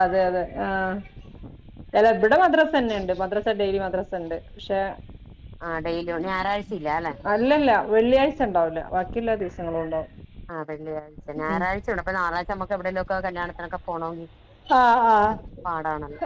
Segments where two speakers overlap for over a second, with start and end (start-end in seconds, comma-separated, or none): none